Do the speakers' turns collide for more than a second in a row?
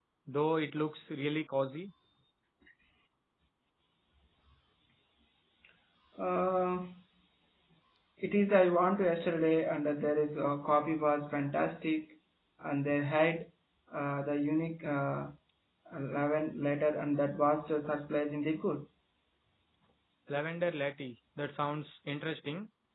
No

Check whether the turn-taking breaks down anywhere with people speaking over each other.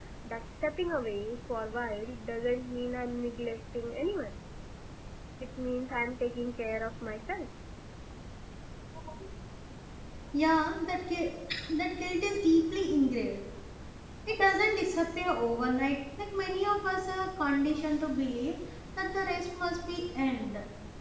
No

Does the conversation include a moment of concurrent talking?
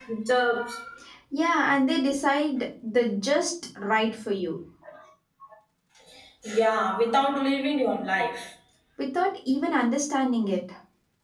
No

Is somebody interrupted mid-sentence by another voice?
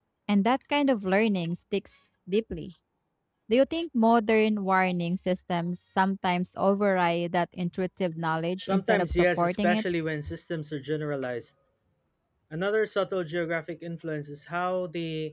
Yes, from 8.6 s

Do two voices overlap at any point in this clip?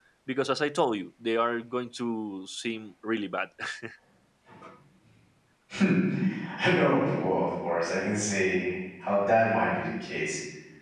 No

